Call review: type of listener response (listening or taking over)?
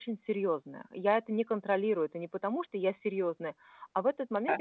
listening